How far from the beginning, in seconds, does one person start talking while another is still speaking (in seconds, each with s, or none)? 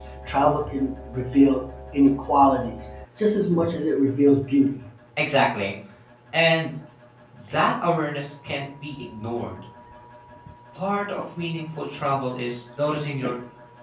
none